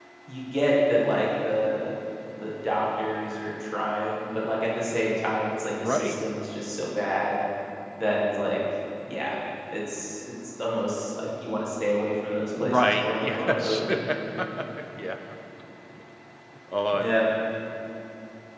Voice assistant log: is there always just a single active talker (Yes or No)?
No